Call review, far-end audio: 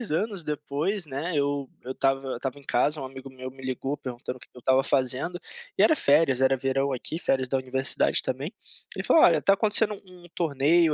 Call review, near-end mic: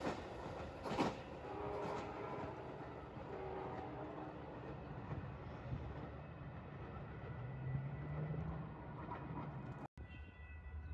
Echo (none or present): none